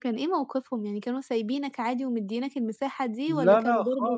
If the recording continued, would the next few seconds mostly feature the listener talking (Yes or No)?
Yes